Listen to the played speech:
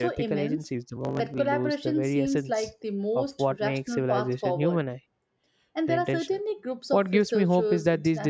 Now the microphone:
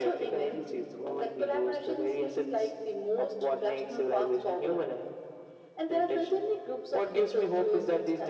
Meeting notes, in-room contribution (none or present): none